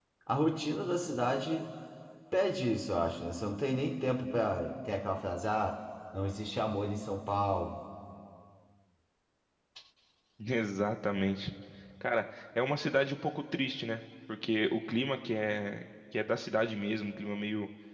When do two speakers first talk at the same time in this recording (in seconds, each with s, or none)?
none